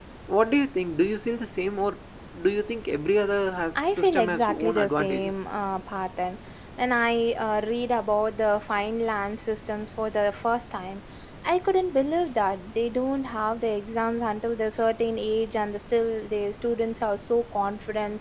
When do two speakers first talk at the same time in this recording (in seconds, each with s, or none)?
3.8 s